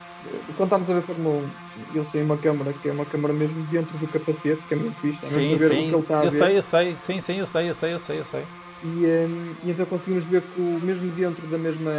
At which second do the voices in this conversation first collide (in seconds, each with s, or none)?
5.2 s